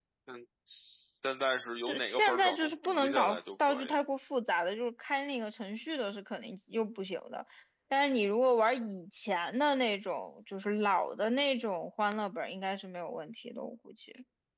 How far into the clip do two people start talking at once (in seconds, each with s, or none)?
1.9 s